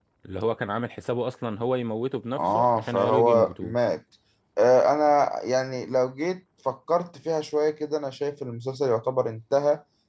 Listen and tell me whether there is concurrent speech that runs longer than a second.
Yes, from 2.4 s

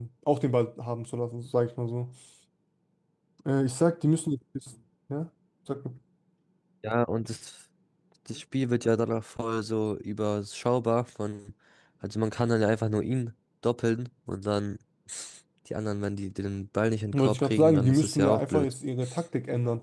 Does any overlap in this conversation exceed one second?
Yes, from 17.1 s

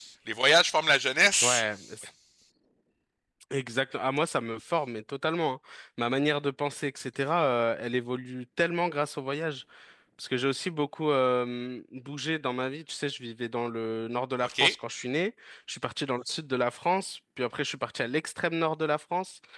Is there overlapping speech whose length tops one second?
No

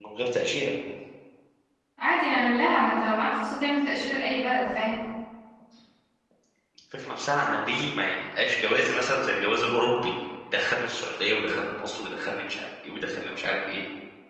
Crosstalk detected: No

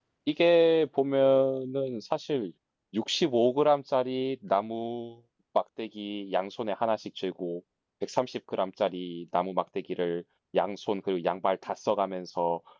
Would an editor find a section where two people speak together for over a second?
No

